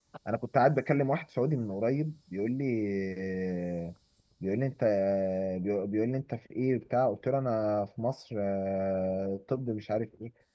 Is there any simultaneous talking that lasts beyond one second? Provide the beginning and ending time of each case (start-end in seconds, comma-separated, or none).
none